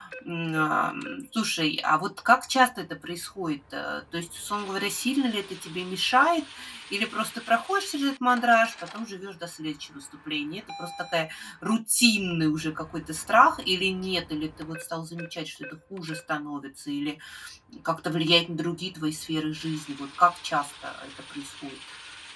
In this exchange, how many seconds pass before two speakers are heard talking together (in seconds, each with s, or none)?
none